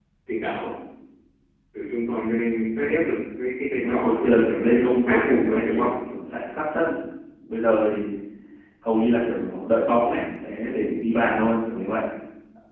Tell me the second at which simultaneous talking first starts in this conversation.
3.7 s

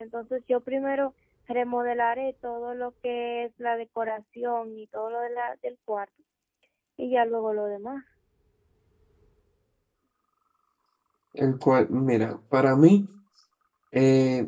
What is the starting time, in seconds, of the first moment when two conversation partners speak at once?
none

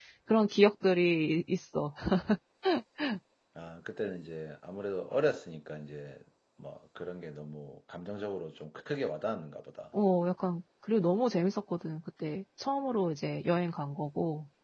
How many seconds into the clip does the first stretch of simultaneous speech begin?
none

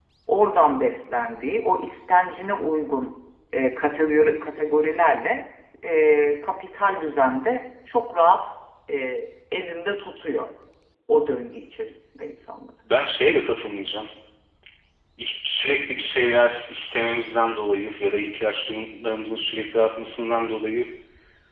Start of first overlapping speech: none

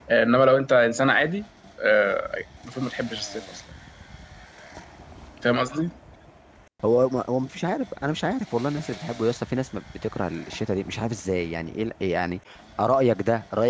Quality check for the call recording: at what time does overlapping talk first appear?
none

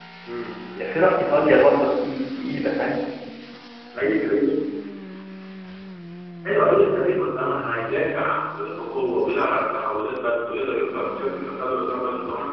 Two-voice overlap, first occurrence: none

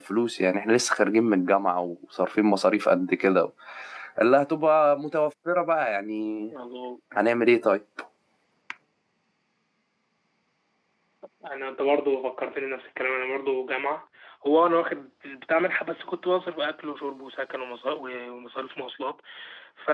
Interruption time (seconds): none

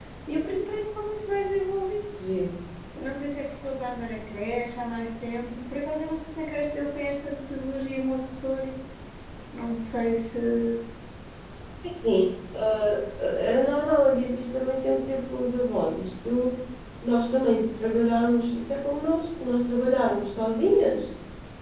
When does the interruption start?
none

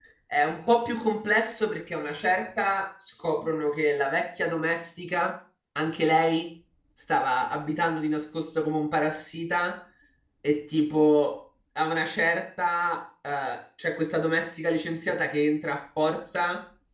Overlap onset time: none

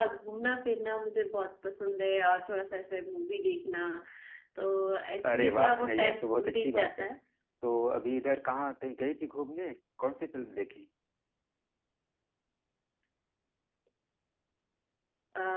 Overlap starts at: 5.2 s

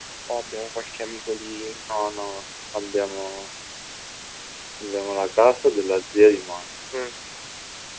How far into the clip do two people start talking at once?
none

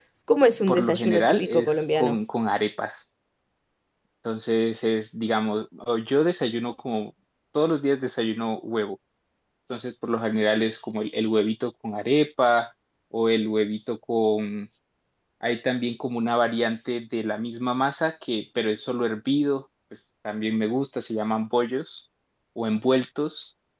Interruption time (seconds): 0.7 s

